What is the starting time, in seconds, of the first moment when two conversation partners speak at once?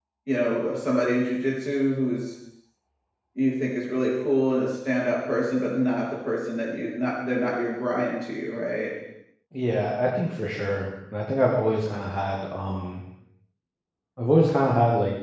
none

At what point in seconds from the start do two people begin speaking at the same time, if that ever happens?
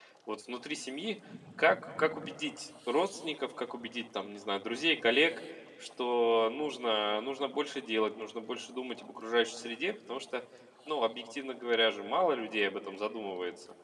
none

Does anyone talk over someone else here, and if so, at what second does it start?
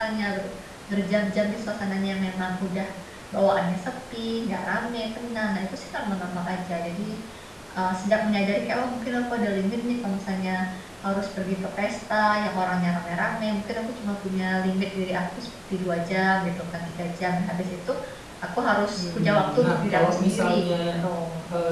18.9 s

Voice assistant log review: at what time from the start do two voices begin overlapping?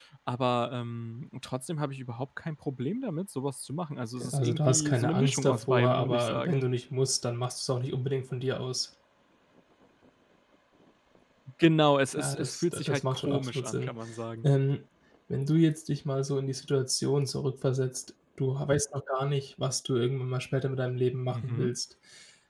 4.2 s

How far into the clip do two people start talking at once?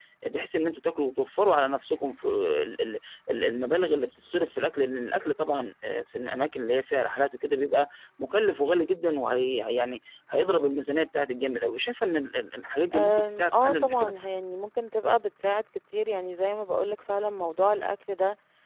12.9 s

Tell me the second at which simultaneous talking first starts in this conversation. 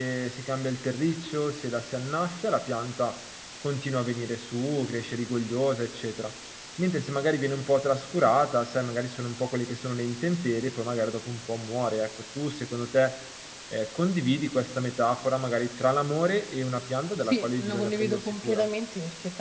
17.2 s

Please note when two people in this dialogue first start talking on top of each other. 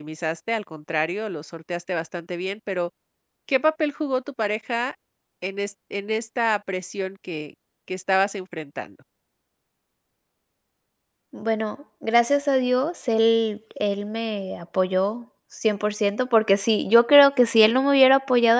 none

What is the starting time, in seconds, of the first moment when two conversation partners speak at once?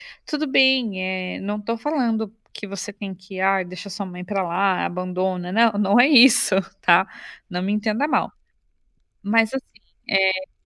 none

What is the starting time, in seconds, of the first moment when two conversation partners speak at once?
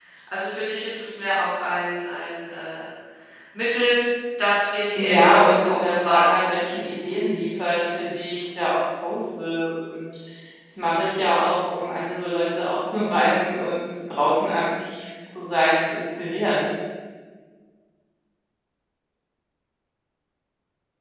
5.0 s

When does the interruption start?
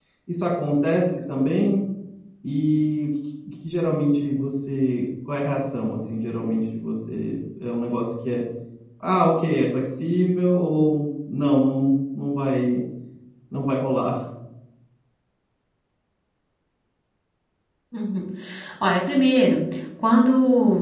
none

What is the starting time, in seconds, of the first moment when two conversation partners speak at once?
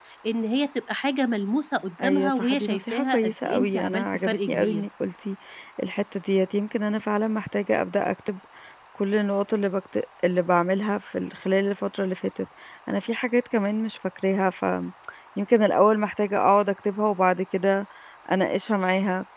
2.0 s

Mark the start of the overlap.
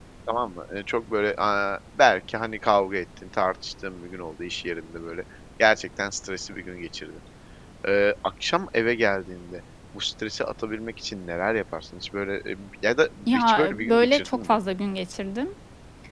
13.2 s

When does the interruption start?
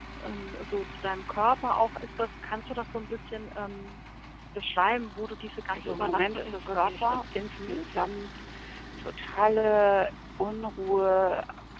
5.7 s

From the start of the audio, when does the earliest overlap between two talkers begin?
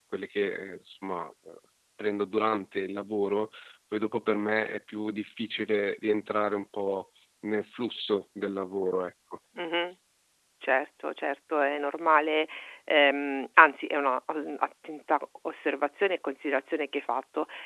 none

